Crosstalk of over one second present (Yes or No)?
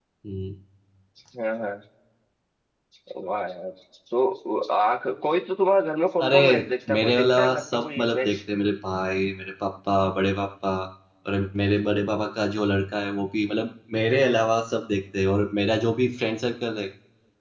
Yes